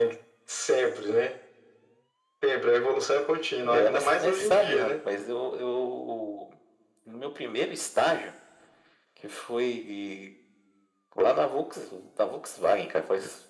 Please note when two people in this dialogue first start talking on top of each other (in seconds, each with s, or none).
3.6 s